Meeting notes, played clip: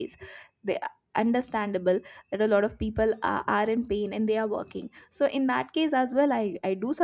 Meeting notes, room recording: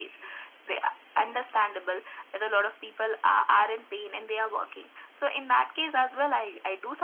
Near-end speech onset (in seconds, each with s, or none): none